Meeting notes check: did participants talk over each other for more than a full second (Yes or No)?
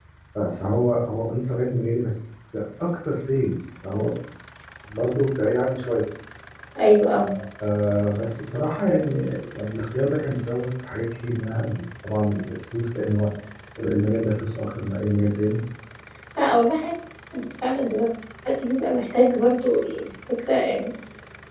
No